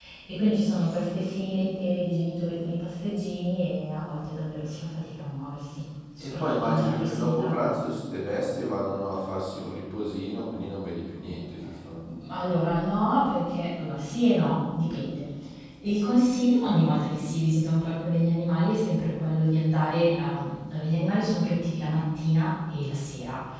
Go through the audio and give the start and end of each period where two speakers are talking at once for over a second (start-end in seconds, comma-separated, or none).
6.2-7.5